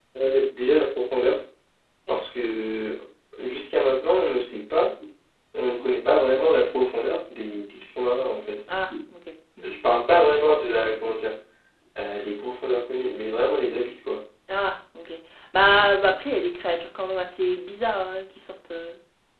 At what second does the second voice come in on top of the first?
none

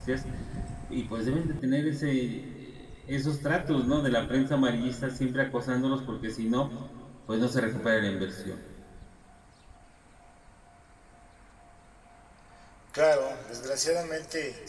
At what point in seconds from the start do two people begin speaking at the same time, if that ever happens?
none

